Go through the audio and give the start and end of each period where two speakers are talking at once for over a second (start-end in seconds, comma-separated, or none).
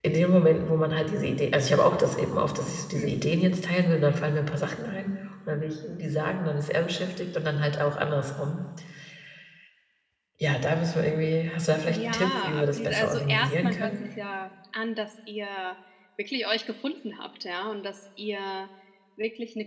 11.9-14.0